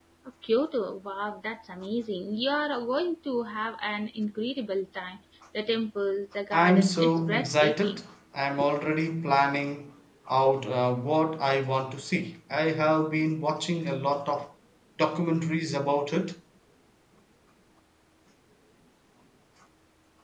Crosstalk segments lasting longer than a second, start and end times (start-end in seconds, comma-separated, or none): 6.5-8.0